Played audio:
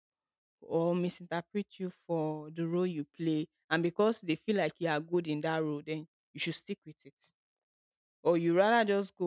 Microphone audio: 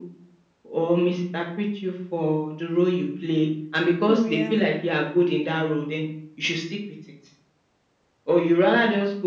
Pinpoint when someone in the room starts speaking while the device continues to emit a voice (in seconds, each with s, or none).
4.0 s